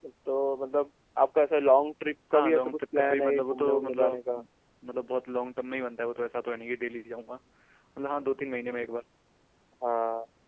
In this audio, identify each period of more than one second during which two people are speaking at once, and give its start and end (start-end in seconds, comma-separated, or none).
2.3-4.2